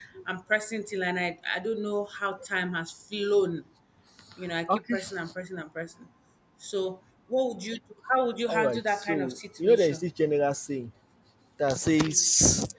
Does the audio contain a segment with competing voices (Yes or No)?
Yes